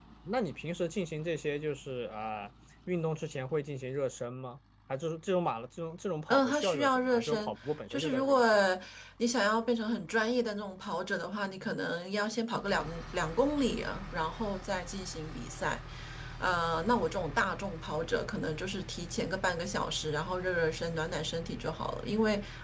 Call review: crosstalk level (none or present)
present